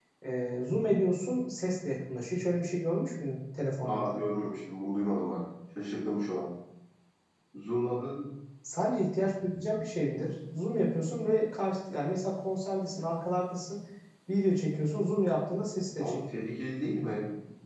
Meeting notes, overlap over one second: none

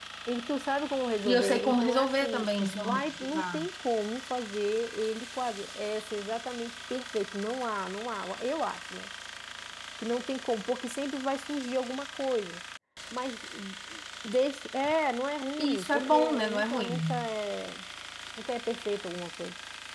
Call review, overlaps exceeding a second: present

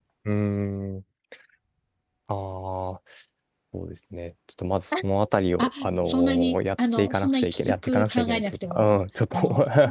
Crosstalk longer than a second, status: present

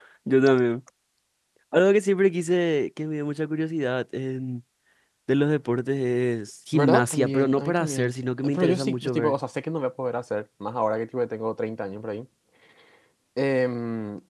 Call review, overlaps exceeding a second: present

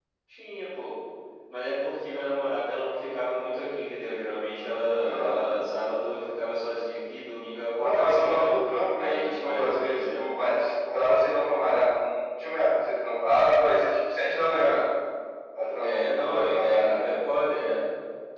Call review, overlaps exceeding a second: present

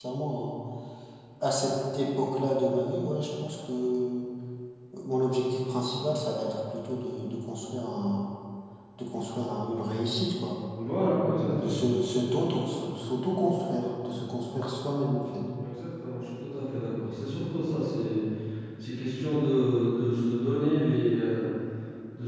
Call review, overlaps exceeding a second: none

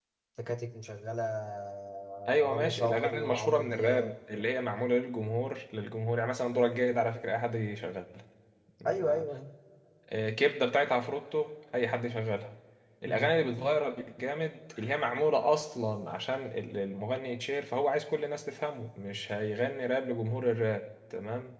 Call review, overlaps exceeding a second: present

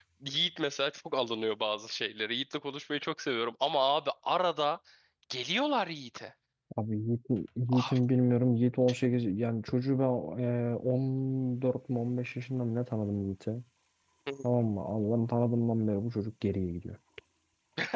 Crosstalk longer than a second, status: none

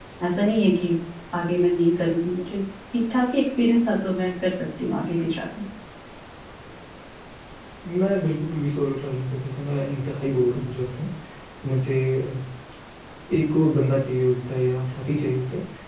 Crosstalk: none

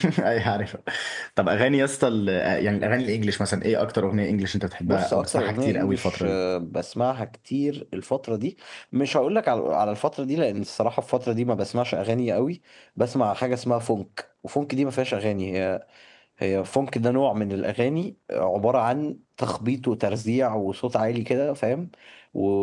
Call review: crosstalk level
present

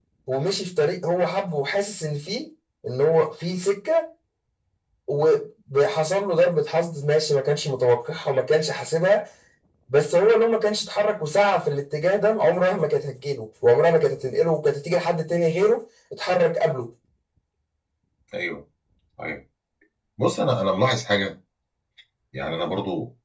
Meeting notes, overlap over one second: none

